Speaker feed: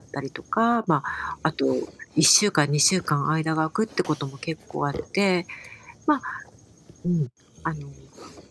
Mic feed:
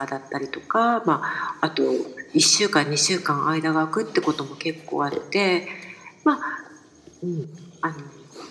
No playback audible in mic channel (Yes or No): No